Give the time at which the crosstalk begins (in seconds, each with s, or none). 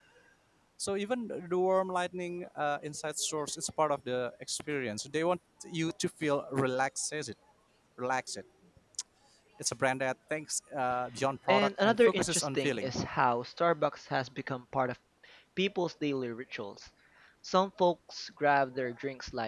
11.5 s